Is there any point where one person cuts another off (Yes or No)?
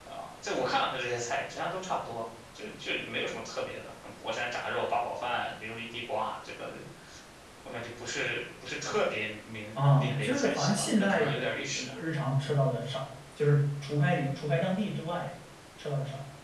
Yes